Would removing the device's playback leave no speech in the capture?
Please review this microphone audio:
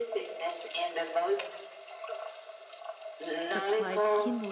No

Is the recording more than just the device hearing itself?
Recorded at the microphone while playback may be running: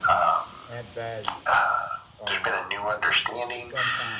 Yes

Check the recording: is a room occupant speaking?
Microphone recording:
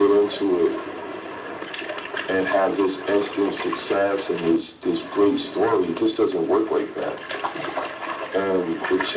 No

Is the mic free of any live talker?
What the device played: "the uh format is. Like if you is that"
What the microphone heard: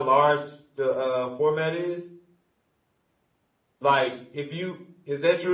Yes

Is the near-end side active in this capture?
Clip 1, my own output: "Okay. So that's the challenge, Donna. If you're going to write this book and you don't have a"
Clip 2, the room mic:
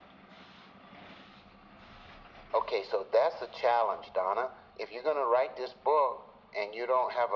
No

